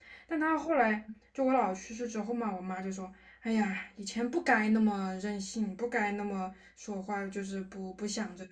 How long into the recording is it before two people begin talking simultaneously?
none

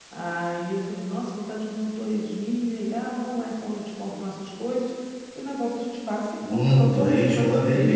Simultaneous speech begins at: 6 s

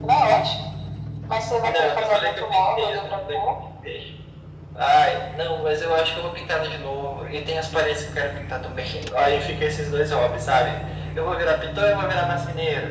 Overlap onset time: 2 s

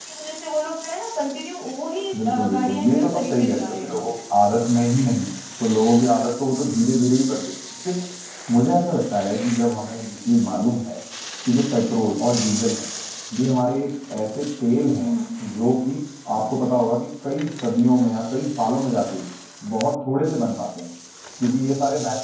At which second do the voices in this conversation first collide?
2 s

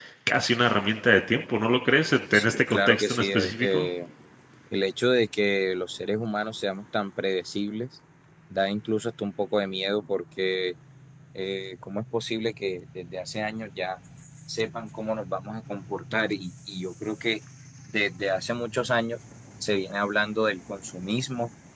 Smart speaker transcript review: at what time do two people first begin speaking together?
2 s

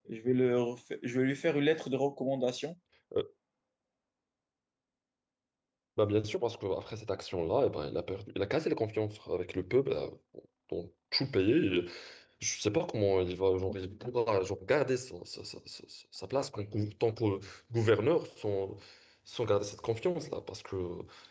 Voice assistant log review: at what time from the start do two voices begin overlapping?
none

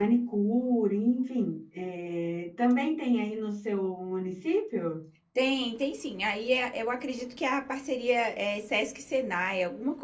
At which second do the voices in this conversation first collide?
none

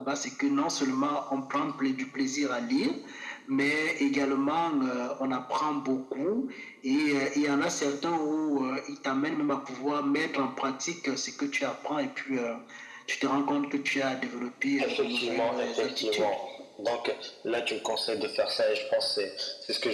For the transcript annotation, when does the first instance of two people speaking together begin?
15 s

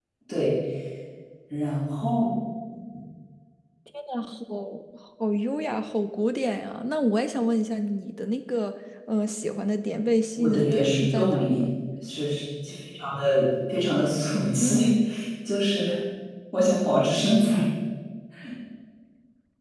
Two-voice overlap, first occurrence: 10 s

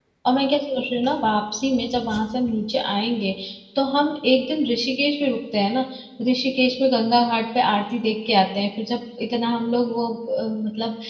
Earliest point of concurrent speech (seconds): none

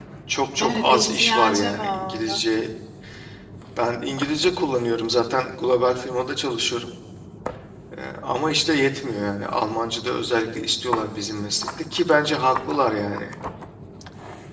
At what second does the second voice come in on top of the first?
1 s

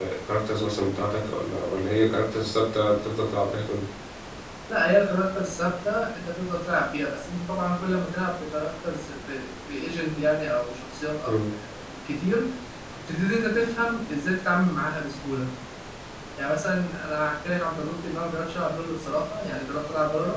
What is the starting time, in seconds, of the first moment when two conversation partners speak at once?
none

